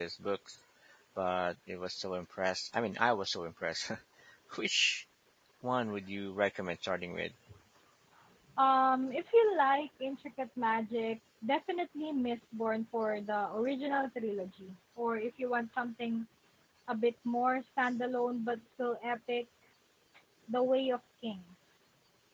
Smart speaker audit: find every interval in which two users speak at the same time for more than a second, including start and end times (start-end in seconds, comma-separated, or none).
none